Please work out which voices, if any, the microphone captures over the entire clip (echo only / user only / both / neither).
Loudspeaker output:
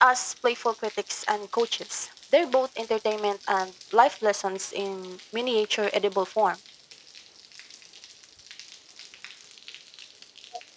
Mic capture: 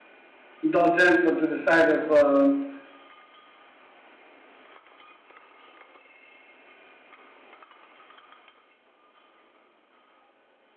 user only